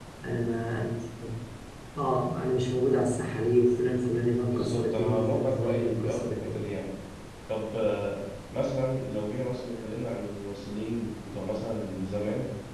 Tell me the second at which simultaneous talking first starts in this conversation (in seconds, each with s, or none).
4.5 s